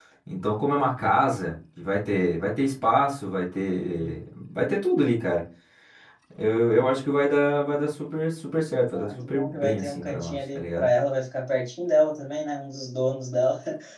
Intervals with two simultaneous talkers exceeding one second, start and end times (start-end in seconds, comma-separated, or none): 8.9-10.9